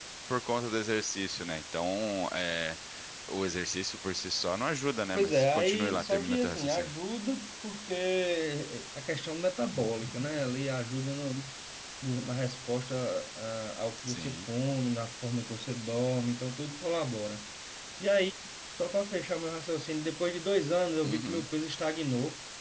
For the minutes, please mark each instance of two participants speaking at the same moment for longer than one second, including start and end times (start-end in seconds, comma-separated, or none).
5.1-6.9